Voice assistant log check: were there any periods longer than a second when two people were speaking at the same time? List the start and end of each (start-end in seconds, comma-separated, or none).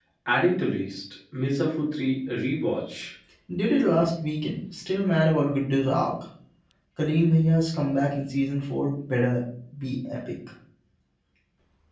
none